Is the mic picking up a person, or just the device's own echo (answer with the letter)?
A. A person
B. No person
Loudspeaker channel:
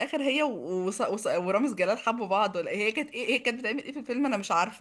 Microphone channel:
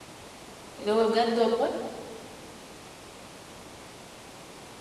A